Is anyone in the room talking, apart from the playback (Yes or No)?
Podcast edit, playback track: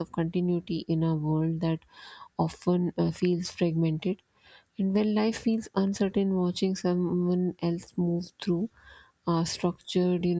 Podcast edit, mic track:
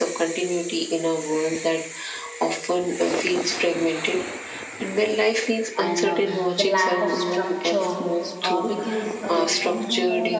Yes